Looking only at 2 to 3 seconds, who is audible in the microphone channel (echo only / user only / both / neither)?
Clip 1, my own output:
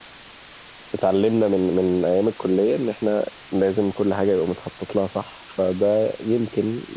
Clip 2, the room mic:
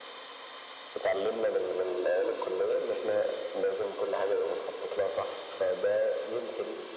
echo only